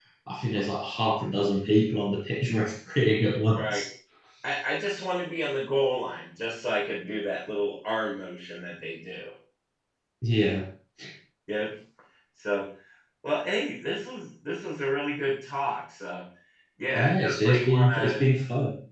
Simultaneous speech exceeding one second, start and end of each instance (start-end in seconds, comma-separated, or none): 16.9-18.2